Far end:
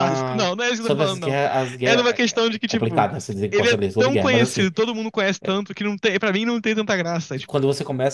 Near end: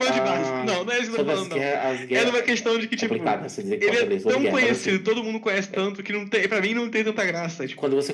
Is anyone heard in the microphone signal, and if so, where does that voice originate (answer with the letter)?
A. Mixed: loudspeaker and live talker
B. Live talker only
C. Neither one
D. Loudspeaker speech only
D